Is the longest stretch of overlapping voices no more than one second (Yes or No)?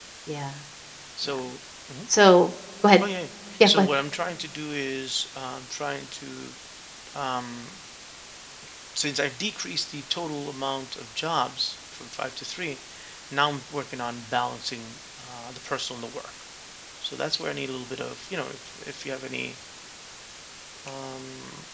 Yes